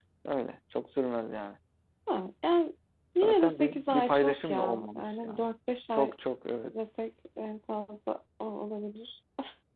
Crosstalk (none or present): present